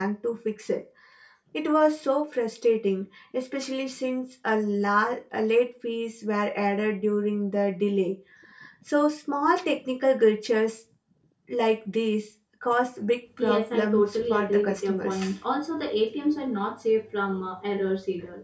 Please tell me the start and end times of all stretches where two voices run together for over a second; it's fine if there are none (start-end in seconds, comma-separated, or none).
13.4-15.2